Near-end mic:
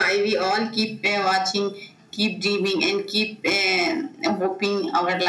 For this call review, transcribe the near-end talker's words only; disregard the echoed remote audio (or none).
none